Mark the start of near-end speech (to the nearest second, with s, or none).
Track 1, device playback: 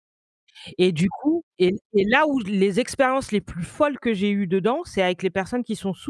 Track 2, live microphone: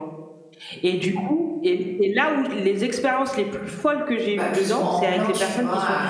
4 s